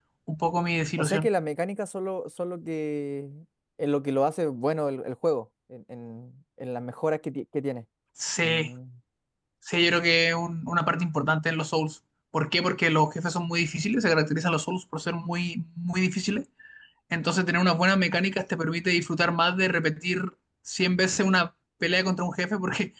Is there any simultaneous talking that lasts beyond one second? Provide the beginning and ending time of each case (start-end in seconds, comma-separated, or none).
none